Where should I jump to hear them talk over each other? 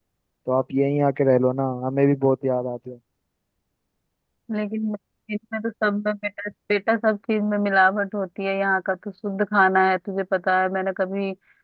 none

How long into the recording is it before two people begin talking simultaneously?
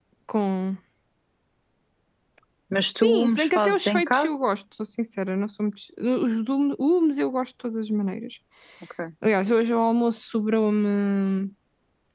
3.0 s

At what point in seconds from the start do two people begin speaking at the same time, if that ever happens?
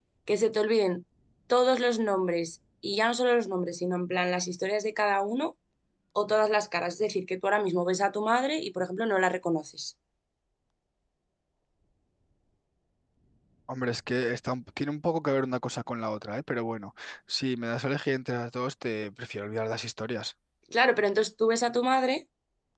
none

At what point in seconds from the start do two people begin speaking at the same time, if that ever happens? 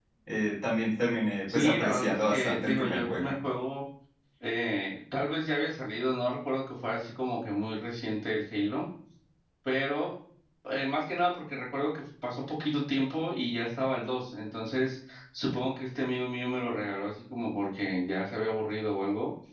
1.5 s

